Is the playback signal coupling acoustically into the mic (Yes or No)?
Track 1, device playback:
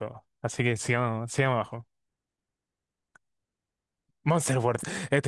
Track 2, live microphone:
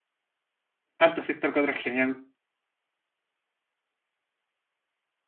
No